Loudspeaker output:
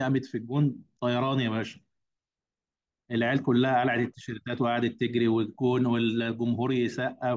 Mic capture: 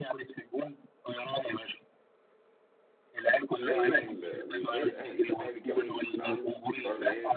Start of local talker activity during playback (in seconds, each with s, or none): 3.5 s